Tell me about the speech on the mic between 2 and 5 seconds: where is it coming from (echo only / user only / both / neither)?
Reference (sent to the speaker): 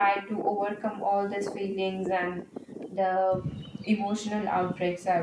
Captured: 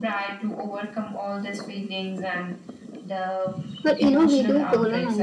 both